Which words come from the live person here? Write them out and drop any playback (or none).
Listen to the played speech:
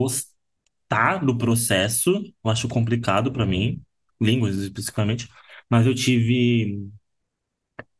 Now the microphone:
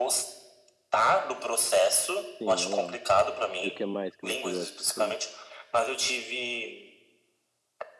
Sim, eu amo. E o que mais que você gosta de fazer?